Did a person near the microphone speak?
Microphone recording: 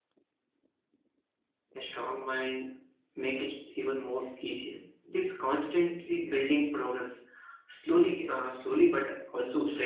Yes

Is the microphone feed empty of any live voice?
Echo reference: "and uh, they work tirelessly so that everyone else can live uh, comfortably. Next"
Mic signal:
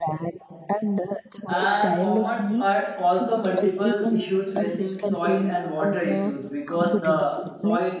No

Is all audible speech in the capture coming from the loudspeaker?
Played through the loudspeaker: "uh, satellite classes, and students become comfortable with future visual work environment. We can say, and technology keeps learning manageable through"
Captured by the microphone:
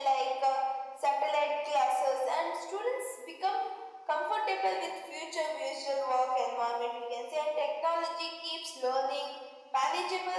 Yes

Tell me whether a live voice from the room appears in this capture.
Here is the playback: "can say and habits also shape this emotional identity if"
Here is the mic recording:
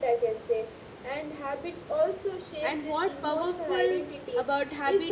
Yes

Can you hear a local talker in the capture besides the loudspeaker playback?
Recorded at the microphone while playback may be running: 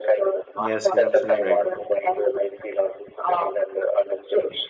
Yes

